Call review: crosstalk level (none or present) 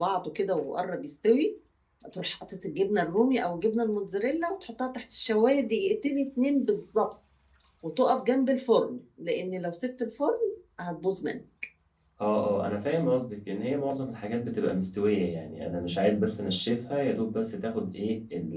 none